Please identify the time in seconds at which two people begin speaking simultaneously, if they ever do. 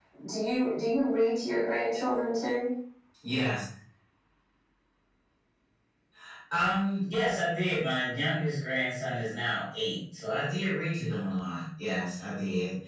none

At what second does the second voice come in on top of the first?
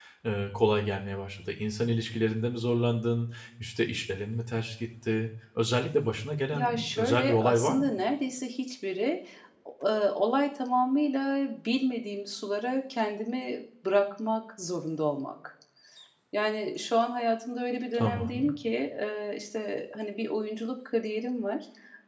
6.5 s

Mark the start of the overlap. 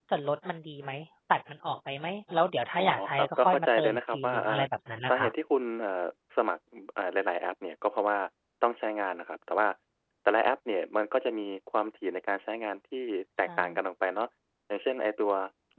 2.8 s

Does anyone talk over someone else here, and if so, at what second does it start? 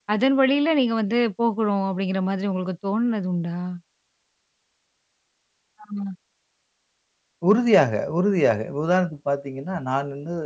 none

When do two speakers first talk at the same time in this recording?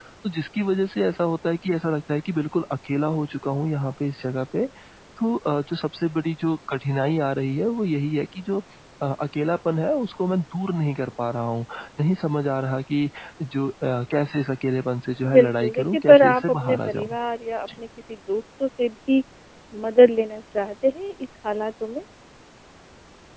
15.2 s

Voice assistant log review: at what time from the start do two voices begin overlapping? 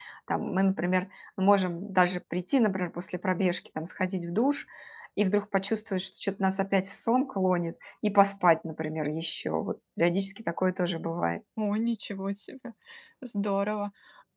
none

